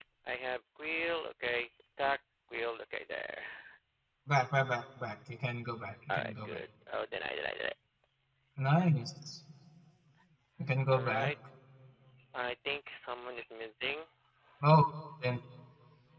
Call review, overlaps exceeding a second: none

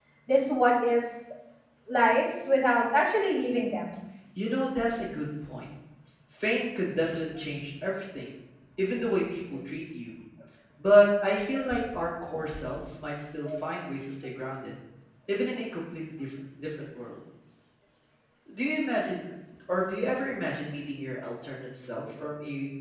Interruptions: none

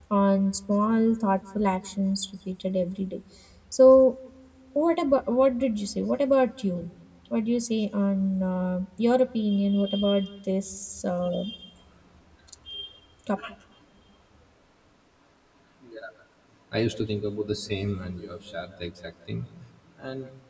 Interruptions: none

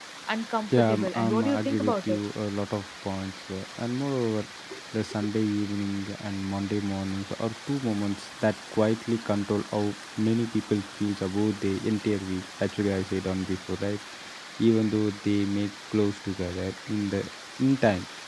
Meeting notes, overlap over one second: present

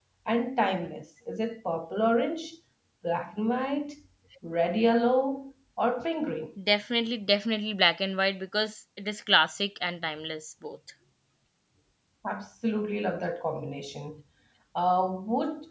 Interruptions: none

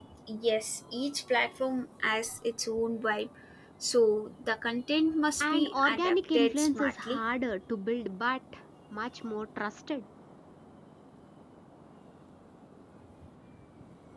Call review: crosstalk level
present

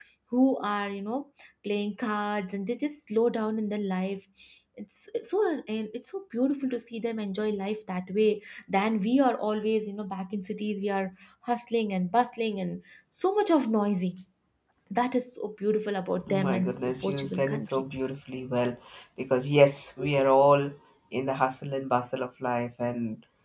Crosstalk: present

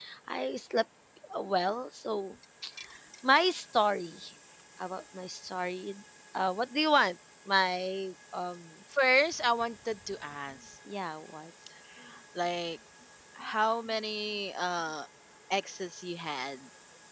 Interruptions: none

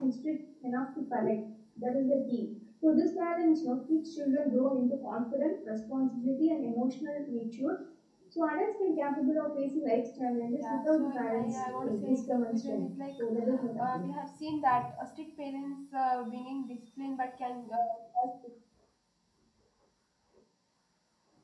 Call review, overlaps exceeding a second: present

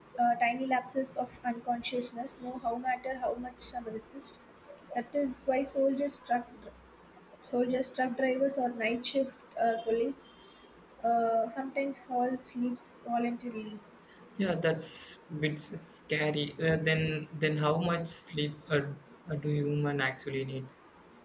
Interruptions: none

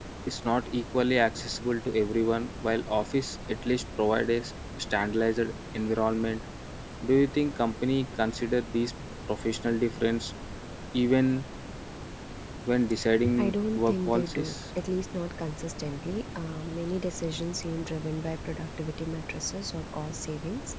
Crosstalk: present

